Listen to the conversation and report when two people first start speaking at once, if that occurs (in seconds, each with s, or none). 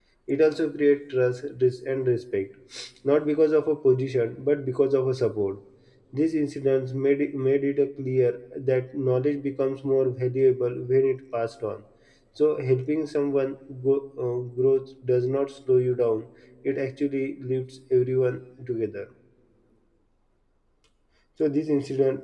none